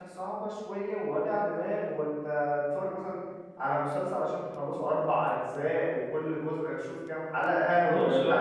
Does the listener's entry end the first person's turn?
Yes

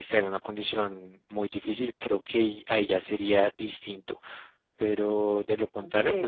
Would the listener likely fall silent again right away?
Yes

